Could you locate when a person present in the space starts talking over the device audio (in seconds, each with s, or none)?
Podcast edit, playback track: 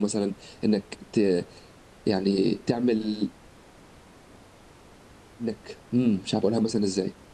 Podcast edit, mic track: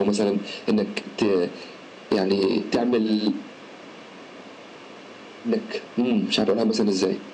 none